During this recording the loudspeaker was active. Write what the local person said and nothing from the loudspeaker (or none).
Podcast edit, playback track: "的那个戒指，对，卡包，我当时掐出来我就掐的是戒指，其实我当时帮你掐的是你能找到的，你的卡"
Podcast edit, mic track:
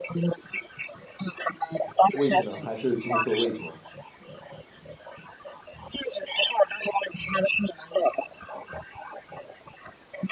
位置呢？还是之前说的位置吗？